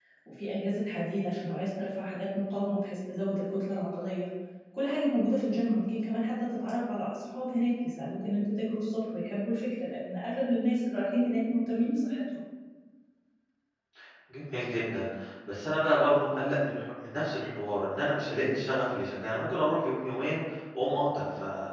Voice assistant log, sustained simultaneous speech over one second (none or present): none